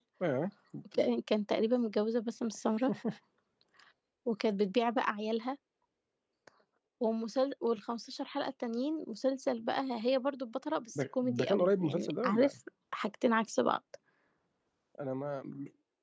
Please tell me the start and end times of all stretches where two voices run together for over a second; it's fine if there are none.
11.0-12.5

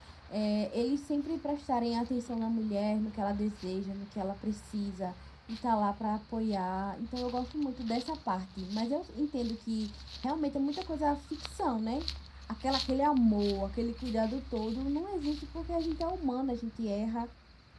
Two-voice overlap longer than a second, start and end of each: none

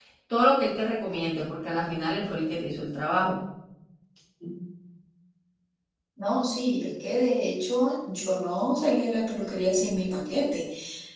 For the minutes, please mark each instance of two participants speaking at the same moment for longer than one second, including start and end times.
none

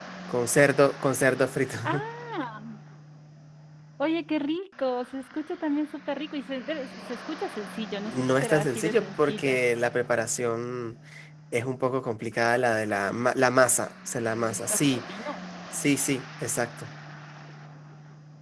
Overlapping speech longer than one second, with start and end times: 8.1-9.6

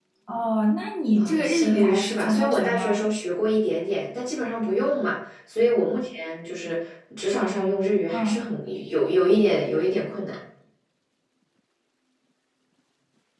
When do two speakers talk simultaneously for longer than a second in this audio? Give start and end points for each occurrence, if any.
1.2-3.0

